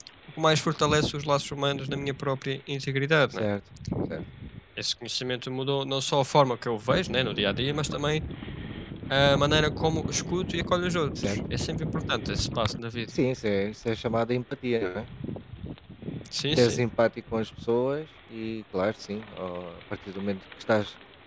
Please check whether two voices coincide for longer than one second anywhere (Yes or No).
No